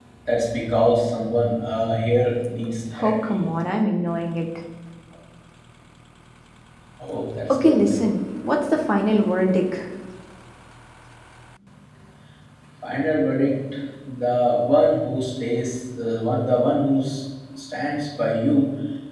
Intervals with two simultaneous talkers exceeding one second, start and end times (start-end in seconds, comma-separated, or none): none